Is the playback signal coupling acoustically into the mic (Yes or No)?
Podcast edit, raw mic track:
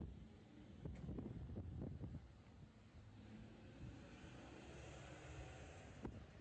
No